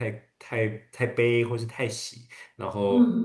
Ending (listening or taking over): listening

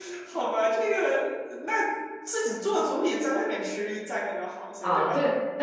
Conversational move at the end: taking over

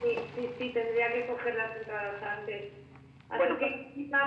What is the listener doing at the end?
listening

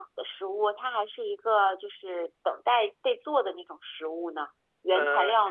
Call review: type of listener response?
taking over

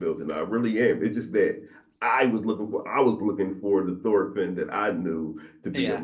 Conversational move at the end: listening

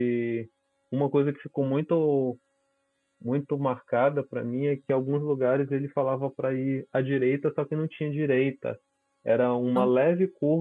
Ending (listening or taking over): listening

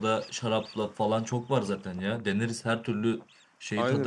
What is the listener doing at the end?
taking over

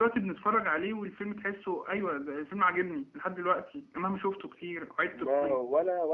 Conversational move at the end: taking over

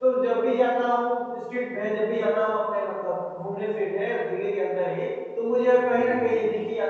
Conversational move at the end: listening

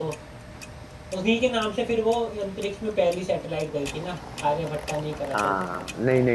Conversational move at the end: taking over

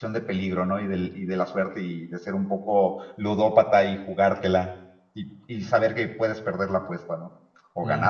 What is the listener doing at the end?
taking over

